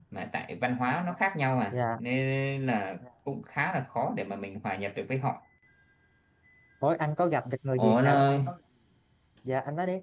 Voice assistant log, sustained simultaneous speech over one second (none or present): none